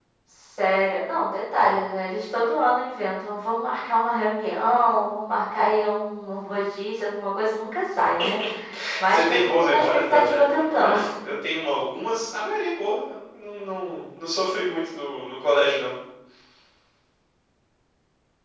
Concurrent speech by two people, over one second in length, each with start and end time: 9.1-11.0

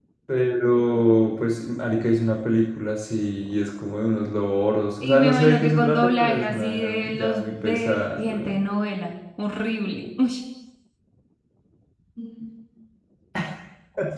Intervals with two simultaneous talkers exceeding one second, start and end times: 5.0-8.6

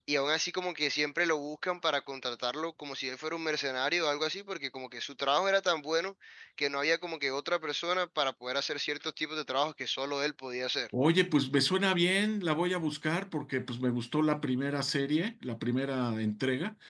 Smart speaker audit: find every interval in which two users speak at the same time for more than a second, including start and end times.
none

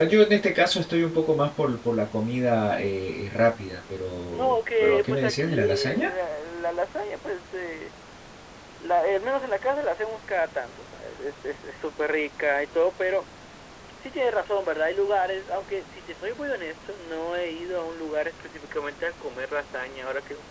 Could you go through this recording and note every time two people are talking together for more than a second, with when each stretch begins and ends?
4.3-6.1

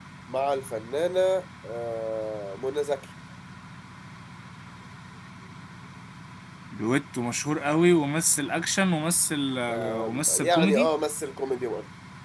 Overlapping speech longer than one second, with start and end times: 9.7-10.9

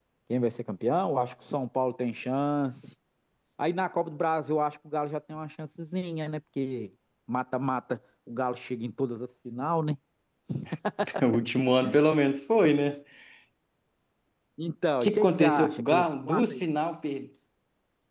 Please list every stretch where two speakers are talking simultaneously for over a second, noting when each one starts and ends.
15.0-16.6

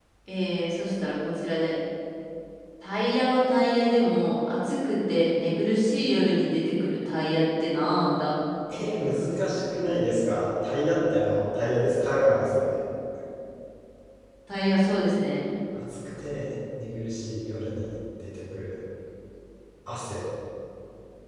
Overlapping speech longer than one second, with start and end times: none

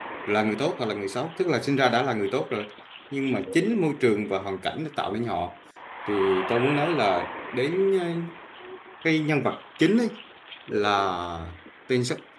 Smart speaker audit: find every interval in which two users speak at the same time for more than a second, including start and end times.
none

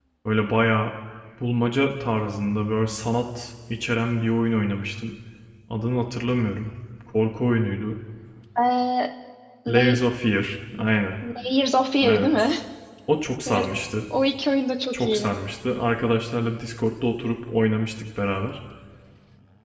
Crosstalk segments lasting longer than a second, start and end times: none

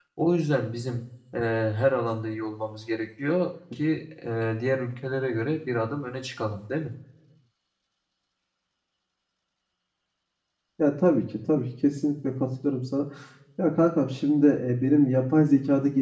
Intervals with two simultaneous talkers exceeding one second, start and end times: none

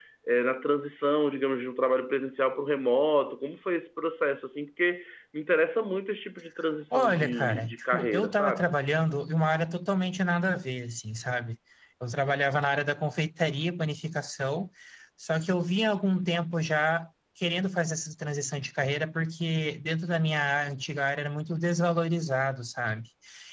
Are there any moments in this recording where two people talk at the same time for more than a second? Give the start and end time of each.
6.9-8.6

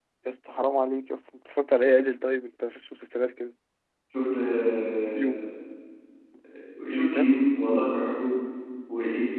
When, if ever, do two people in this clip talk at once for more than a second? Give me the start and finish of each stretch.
none

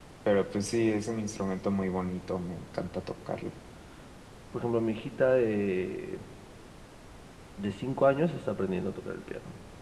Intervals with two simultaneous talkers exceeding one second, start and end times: none

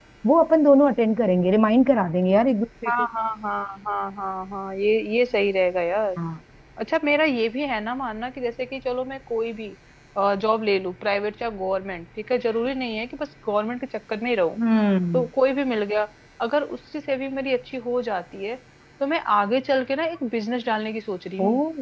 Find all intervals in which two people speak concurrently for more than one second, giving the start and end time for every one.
none

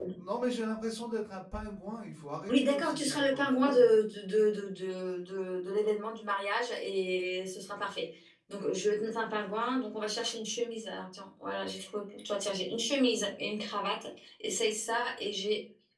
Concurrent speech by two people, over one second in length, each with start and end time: 2.5-3.7

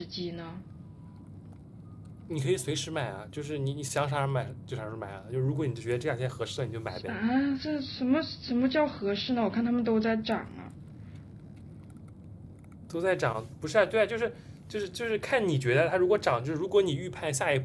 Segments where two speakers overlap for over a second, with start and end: none

